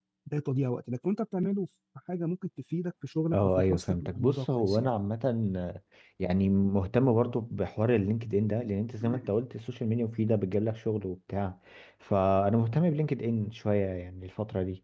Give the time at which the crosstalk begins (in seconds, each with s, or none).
3.3 s